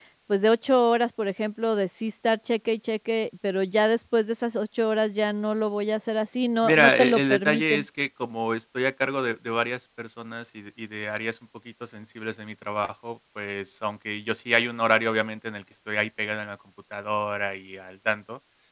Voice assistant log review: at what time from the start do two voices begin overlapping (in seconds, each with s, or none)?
6.6 s